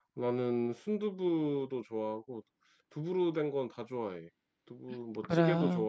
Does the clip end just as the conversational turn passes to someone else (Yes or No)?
No